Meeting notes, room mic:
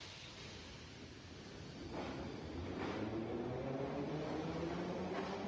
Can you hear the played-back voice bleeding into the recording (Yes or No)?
No